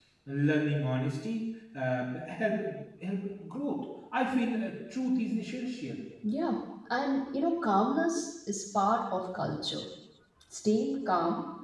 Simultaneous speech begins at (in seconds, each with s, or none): none